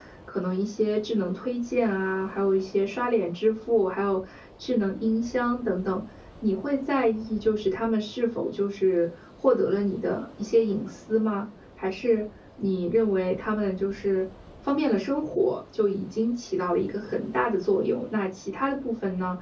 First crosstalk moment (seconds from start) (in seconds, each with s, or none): none